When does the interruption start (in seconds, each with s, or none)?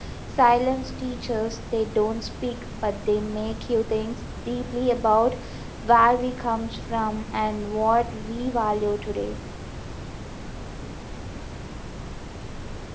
none